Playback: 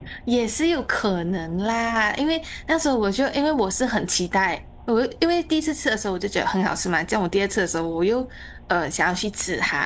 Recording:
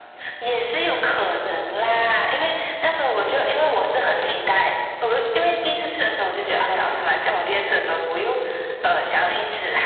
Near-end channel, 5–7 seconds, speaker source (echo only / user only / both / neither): echo only